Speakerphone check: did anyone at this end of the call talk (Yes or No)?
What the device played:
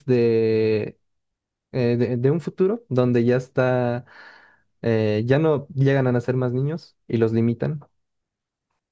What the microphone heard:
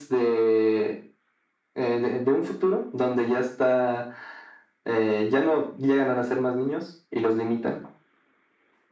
No